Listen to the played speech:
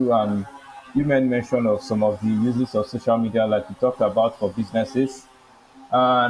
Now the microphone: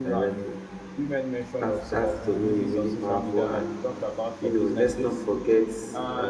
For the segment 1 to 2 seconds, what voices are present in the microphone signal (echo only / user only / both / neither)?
both